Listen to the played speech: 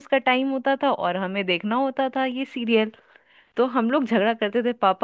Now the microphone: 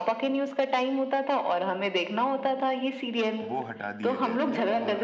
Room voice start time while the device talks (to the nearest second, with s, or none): 3 s